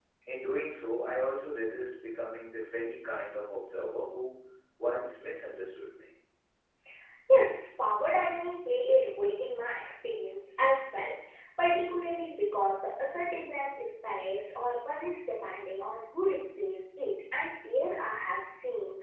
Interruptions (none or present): none